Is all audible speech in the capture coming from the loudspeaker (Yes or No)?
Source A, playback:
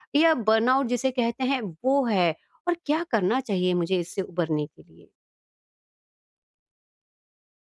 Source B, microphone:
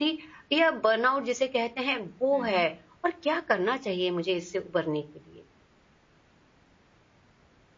No